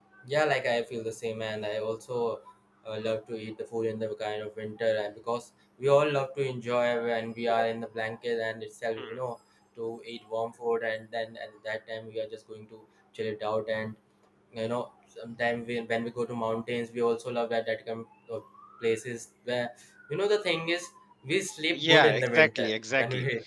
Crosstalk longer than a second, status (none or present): present